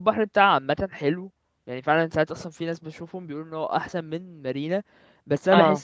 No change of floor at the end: Yes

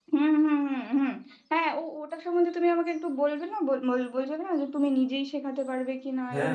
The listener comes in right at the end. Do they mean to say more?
Yes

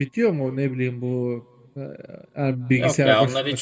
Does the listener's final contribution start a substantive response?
Yes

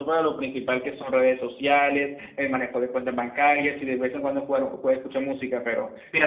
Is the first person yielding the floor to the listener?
Yes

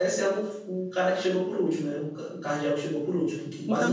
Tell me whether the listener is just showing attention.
No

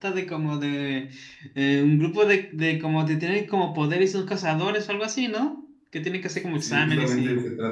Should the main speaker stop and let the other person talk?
Yes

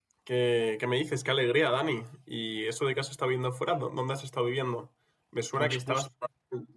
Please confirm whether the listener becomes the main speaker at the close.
No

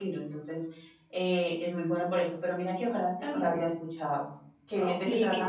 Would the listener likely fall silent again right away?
No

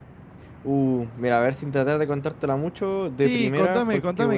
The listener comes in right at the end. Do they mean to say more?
Yes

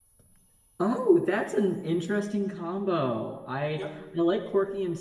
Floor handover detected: No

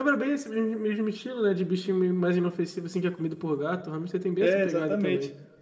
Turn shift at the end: Yes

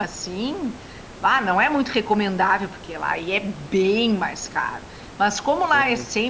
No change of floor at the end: Yes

